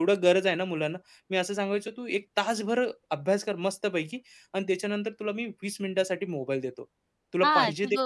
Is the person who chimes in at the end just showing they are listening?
No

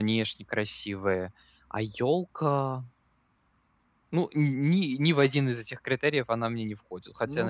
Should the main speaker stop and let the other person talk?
Yes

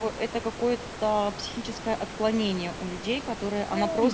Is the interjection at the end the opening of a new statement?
No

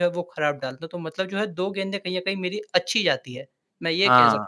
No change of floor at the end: No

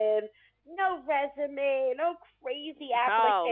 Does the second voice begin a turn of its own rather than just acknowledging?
Yes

